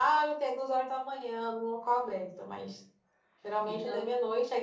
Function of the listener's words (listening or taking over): listening